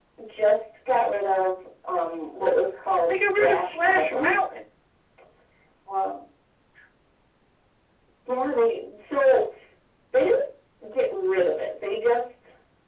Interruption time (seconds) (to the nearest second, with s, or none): 3 s